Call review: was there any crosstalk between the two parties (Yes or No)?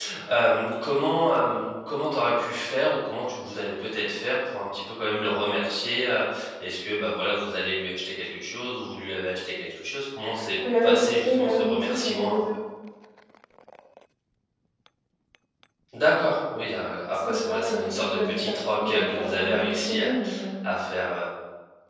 Yes